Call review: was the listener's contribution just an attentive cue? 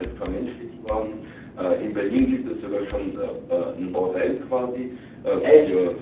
Yes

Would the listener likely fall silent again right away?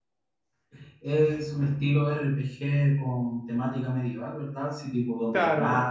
No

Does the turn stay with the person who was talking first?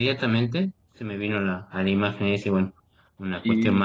Yes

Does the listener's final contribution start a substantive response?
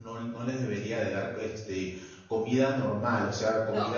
No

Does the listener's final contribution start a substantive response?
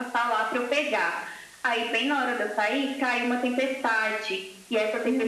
No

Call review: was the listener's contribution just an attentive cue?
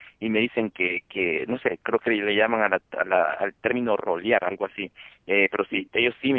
Yes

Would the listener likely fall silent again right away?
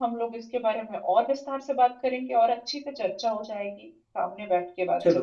No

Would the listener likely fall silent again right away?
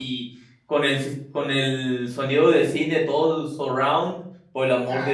Yes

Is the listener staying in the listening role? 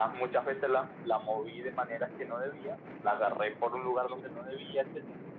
Yes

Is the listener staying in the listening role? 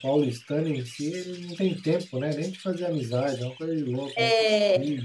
No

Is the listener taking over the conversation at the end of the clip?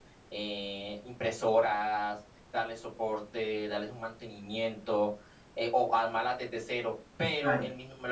No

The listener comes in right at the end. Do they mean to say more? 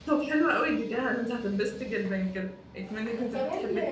Yes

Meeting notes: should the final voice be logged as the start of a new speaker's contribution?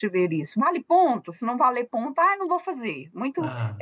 No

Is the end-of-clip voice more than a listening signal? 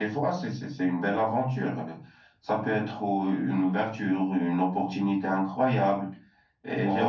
No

